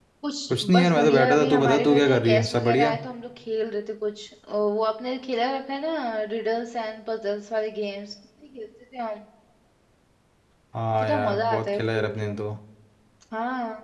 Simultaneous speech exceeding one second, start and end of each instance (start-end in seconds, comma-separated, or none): 0.7-3.0, 11.0-12.3